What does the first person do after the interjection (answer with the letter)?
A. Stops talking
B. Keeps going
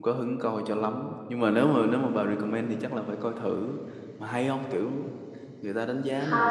A